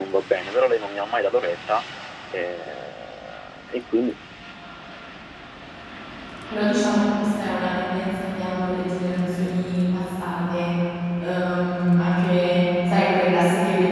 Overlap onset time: none

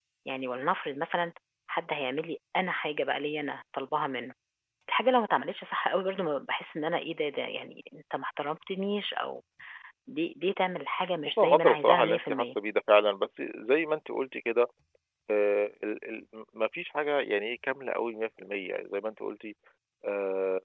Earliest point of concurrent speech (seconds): 11.2 s

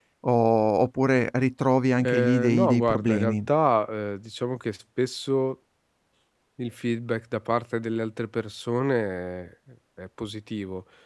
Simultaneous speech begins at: 2.0 s

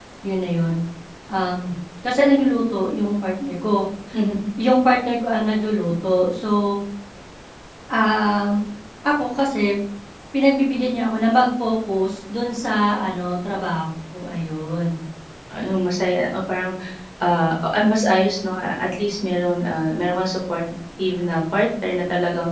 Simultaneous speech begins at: none

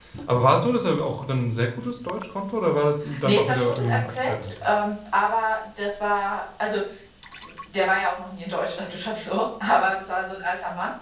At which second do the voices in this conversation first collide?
3.0 s

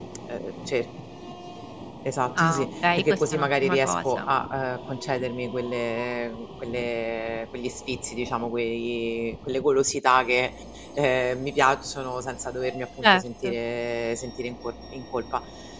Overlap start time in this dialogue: 2.4 s

